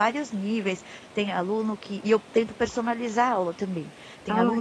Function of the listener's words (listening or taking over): listening